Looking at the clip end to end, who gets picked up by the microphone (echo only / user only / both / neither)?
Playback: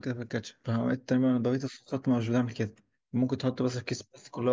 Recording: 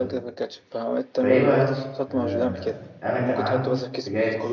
both